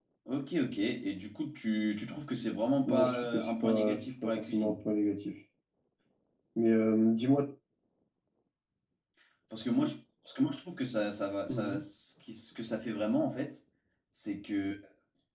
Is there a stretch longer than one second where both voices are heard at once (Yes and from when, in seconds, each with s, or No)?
Yes, from 2.9 s